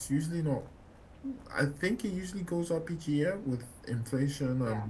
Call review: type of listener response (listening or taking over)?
listening